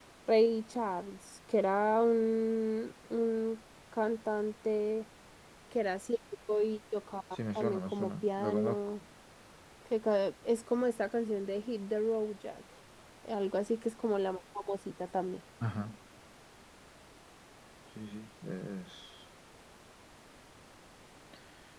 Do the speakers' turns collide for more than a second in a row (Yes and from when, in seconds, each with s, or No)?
Yes, from 7.5 s